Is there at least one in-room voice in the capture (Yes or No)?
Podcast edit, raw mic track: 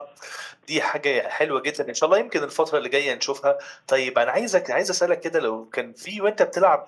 No